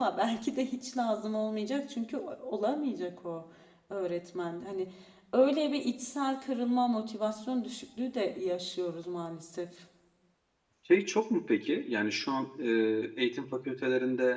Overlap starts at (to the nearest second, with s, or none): none